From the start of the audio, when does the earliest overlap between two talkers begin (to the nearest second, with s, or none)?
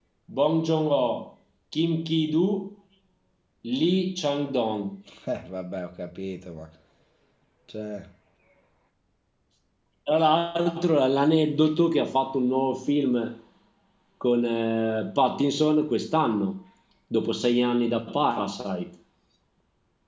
none